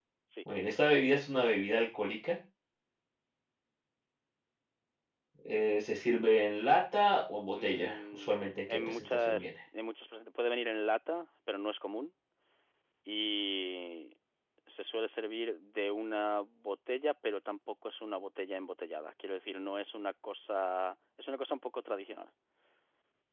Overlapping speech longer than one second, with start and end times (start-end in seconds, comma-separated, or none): 7.5-9.5